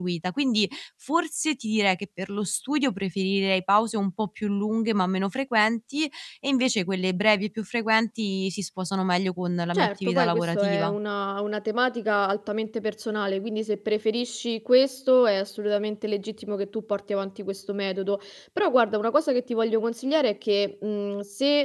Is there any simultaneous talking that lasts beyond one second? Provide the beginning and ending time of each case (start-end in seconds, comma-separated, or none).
9.7-10.9